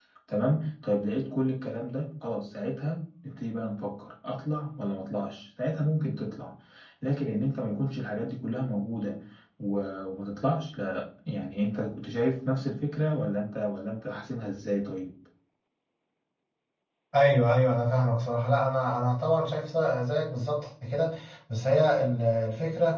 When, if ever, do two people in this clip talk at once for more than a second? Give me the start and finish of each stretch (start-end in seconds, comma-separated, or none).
none